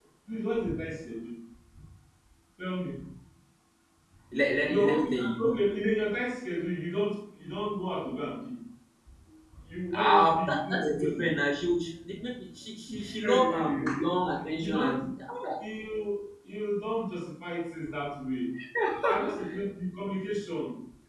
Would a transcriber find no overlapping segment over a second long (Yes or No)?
No